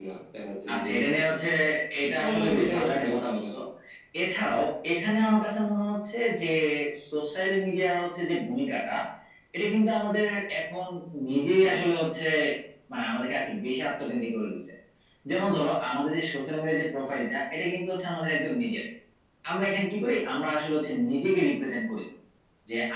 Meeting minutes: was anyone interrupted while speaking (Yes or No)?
Yes